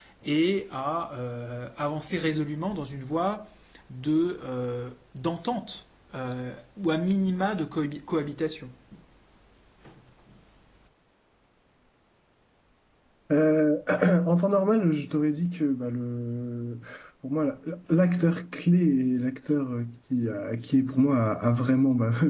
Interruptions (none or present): none